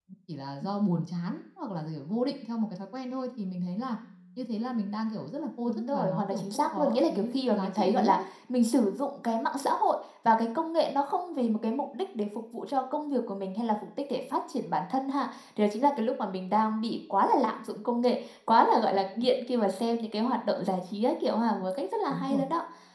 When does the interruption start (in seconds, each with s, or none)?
5.7 s